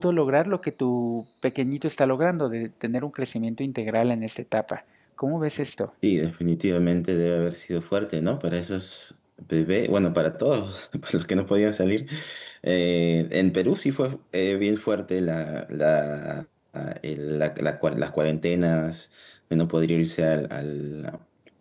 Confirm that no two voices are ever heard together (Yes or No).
Yes